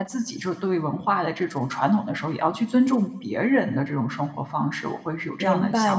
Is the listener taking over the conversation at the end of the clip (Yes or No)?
Yes